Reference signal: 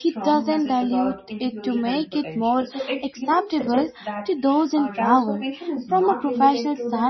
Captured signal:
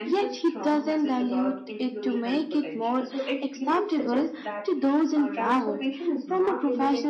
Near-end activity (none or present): none